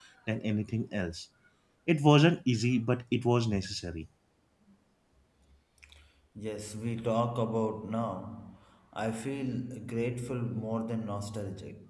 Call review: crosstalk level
none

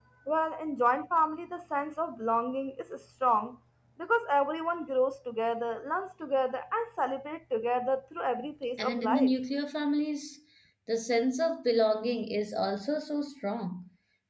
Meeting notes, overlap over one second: none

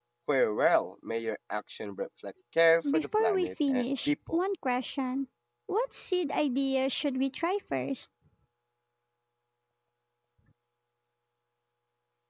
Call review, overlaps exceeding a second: present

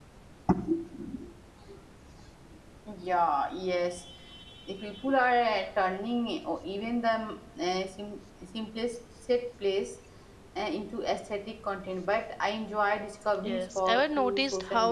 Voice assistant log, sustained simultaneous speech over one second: present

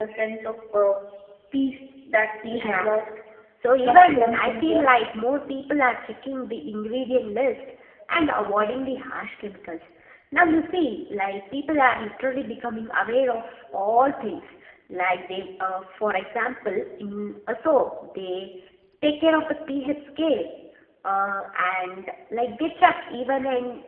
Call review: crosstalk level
present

